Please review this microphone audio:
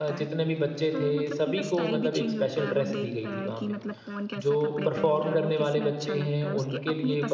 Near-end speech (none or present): present